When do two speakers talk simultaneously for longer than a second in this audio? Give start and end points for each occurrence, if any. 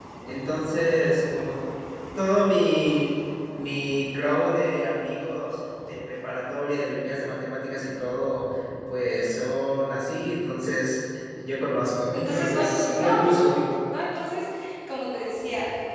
12.1-13.3

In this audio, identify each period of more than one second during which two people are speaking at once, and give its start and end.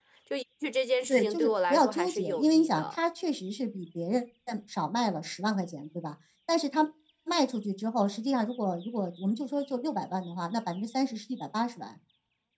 1.1-3.0

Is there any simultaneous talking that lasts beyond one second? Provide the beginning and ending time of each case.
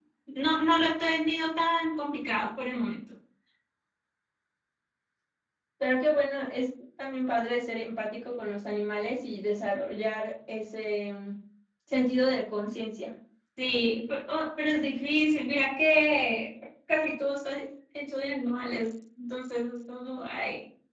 none

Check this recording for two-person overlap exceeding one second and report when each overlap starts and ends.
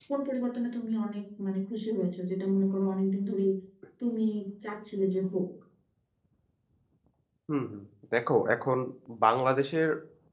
none

